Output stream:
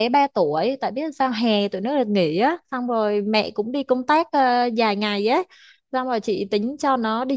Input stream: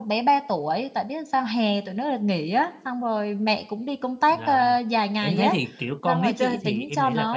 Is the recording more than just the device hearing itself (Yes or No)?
Yes